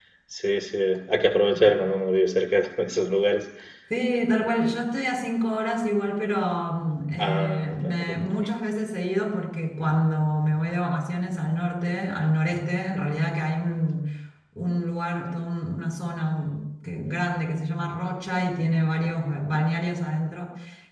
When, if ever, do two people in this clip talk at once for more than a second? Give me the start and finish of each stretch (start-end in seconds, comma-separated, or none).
7.2-8.5